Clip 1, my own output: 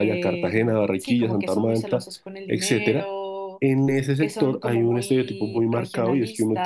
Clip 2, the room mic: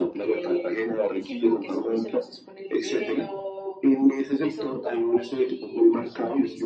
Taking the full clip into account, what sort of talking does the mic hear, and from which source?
echo only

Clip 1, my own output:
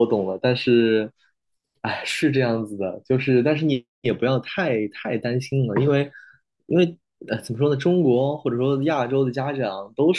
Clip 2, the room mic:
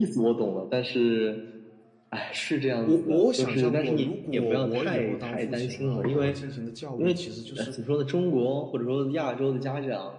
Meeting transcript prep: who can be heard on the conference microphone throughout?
both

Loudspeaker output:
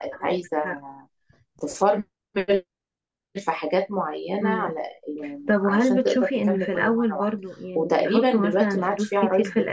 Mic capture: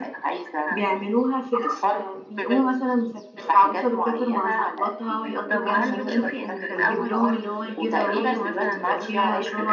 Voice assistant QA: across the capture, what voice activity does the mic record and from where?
both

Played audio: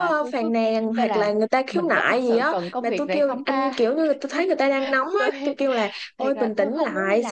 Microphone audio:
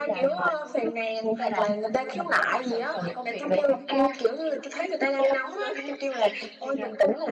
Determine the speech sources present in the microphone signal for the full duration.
echo only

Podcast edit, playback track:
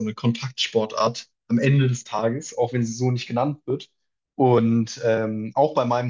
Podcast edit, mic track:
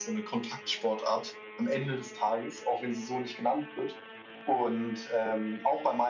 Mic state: echo only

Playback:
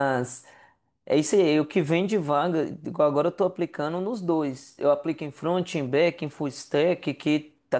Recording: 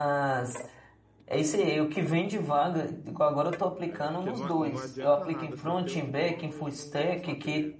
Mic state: both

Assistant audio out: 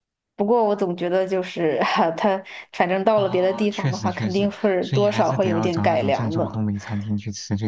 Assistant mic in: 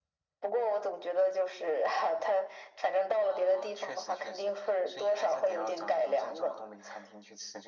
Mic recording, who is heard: echo only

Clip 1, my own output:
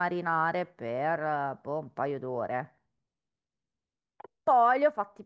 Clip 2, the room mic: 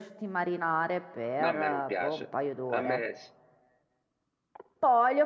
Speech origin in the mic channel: both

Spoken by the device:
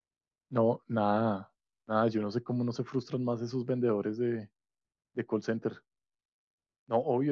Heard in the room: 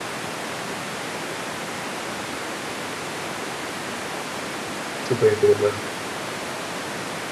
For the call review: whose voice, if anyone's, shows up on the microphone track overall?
user only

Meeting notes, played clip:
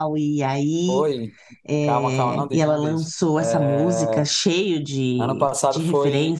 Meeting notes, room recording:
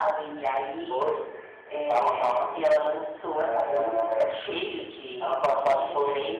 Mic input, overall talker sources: echo only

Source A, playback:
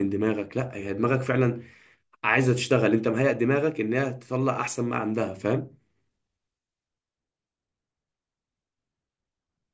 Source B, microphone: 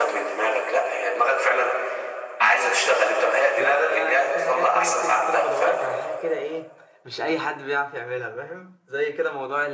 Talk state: both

